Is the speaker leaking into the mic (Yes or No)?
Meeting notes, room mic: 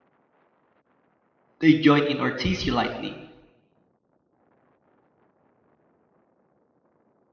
No